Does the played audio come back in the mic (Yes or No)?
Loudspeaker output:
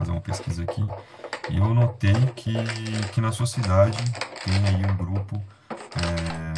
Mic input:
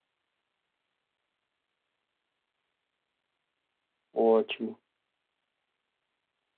No